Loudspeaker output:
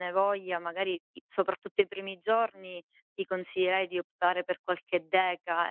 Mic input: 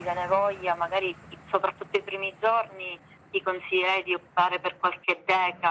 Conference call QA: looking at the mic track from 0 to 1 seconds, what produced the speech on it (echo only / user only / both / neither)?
echo only